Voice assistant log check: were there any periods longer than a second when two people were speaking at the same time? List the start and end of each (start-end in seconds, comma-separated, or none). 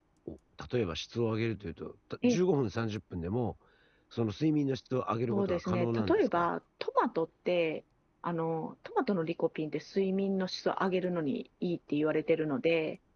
5.3-6.5